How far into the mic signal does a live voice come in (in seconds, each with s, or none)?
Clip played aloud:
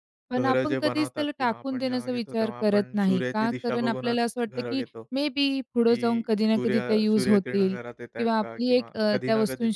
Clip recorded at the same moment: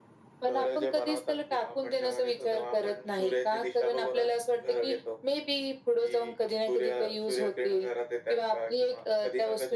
none